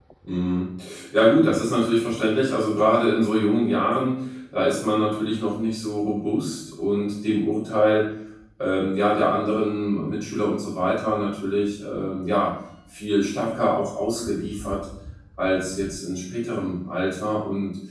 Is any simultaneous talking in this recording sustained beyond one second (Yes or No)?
No